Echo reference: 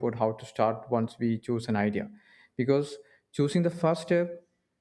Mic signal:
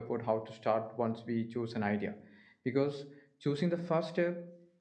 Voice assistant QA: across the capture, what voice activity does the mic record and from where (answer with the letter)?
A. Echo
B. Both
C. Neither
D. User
A